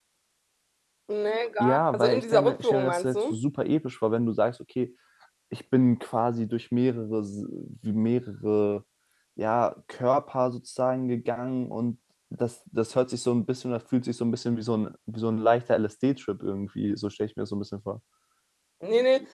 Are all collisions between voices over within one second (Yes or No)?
No